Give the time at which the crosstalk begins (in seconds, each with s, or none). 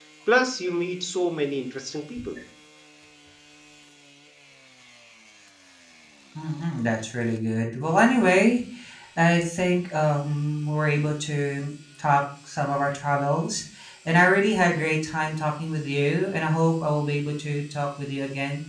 none